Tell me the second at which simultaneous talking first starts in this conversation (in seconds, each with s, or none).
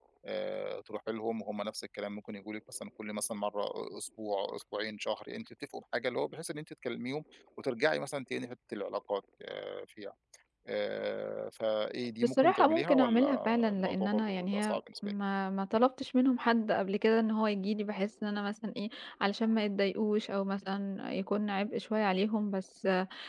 12.2 s